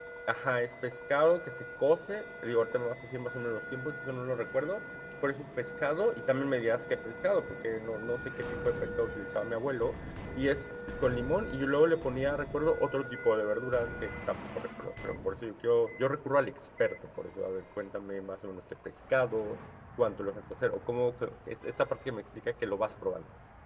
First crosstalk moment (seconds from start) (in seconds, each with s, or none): none